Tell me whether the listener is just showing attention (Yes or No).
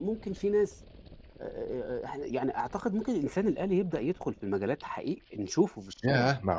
No